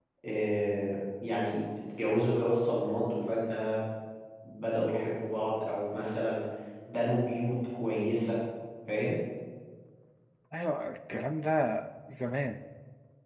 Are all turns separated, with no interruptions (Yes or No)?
Yes